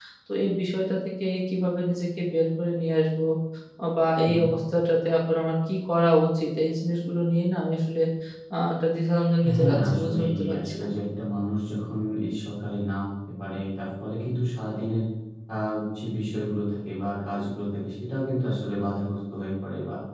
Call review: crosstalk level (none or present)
present